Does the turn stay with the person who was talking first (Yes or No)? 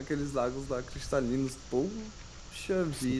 No